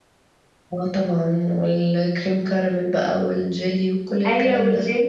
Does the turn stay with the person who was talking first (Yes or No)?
No